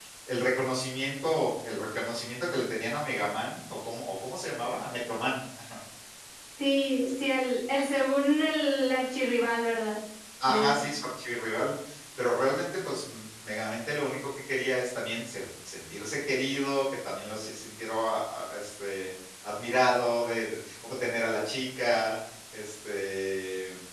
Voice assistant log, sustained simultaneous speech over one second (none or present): none